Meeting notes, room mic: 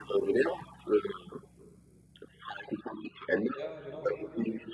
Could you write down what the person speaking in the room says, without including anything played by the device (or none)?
Ja, genau.